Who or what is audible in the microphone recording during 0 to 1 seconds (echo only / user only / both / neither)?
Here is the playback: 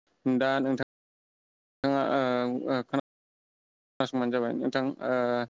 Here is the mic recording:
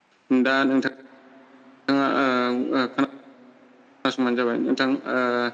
echo only